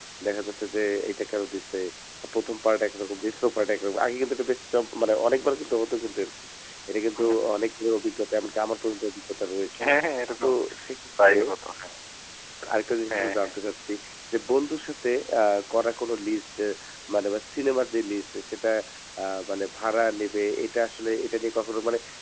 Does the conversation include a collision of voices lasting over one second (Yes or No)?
No